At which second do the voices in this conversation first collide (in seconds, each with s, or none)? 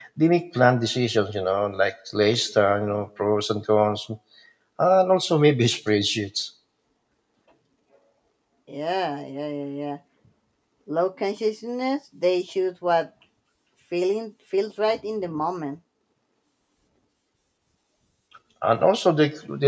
none